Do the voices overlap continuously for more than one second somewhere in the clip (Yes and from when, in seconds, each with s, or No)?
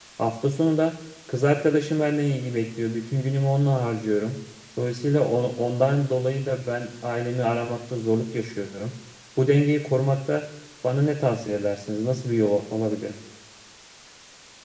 No